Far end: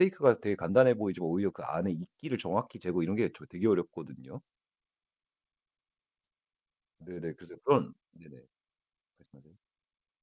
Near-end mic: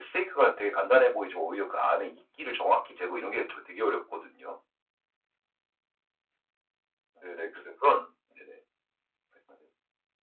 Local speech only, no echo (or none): none